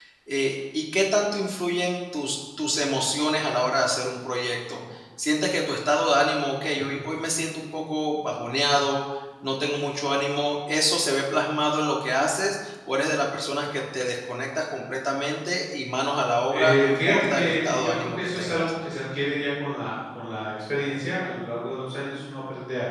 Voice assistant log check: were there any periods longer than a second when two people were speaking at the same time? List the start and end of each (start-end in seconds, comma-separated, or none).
16.5-18.7